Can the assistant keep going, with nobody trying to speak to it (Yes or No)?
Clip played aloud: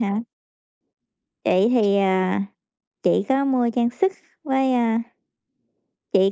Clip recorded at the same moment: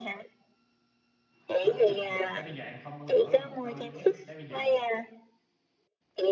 No